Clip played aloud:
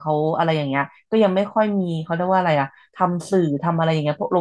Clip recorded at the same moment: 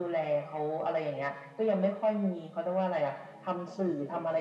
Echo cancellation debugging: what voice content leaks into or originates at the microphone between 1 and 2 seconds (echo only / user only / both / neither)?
echo only